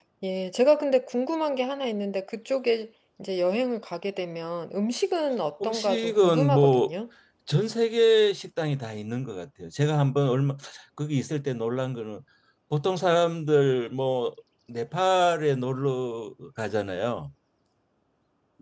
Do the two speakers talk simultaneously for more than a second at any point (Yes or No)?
Yes